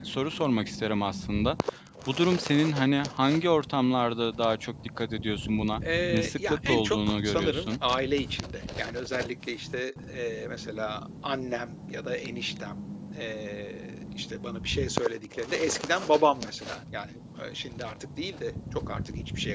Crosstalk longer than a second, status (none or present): present